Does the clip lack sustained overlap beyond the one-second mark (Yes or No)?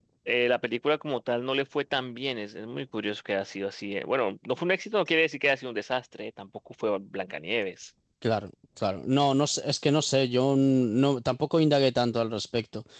Yes